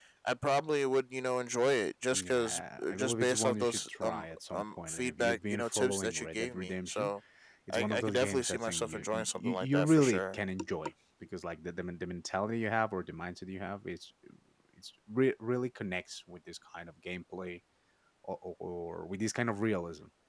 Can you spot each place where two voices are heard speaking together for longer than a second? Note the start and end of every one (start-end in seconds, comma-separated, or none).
3.0-7.1, 7.7-10.4